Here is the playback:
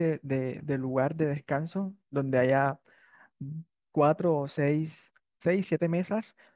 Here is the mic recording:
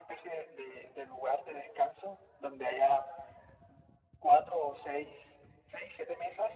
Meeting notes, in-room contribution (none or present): none